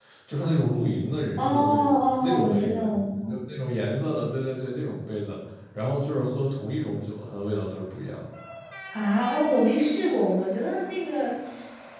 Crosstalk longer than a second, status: present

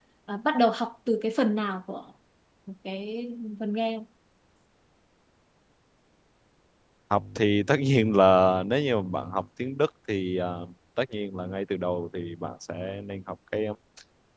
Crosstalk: none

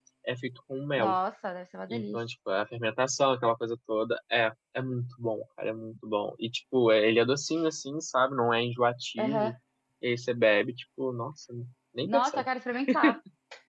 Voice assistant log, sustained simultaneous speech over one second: none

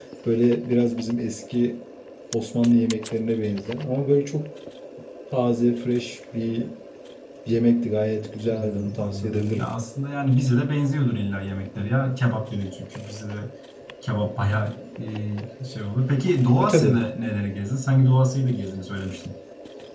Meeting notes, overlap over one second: present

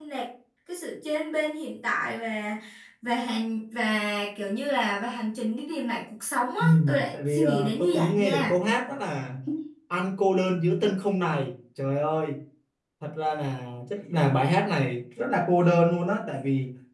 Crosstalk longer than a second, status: present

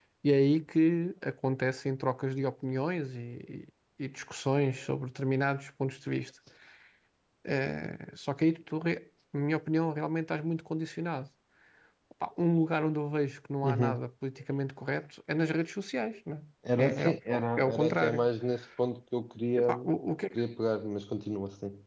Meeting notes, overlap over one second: present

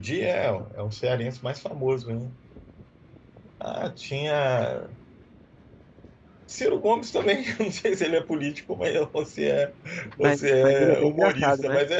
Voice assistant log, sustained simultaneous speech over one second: present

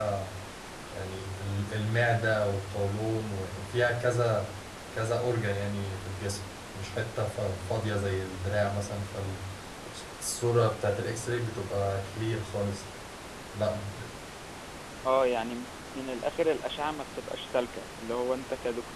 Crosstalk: none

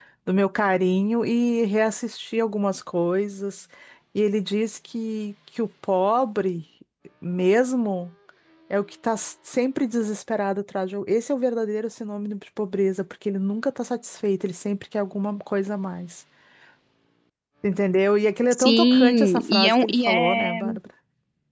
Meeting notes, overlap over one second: present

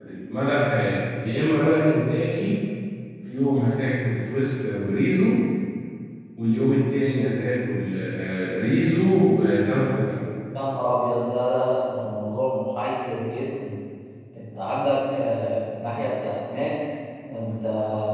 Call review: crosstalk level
none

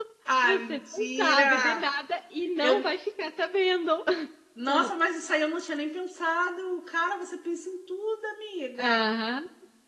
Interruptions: present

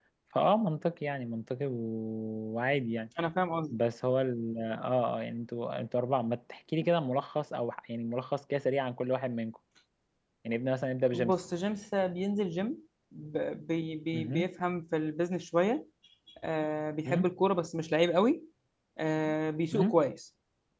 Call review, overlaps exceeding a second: none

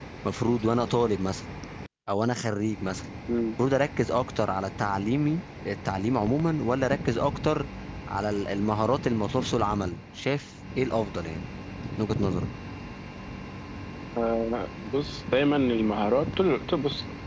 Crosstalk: none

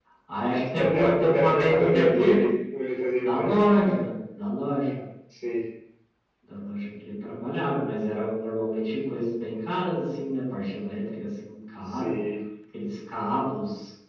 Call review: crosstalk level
present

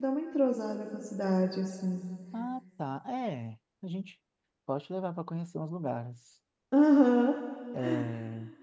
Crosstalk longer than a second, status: none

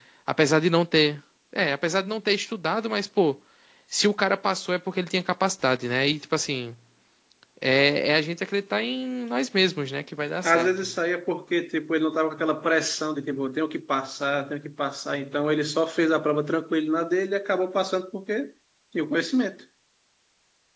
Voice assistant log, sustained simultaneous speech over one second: none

